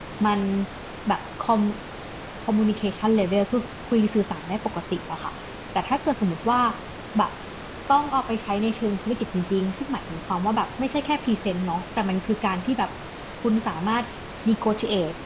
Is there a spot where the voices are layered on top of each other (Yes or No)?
No